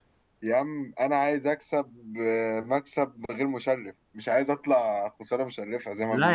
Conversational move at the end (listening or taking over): taking over